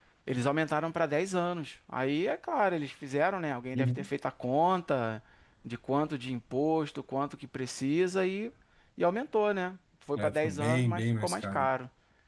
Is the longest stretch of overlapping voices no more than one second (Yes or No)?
No